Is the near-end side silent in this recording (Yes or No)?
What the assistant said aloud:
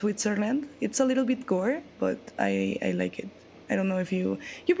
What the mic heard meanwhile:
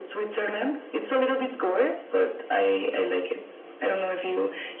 Yes